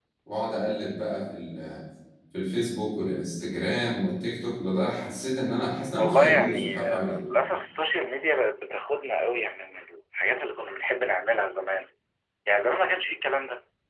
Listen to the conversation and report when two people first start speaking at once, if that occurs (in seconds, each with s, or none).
6.0 s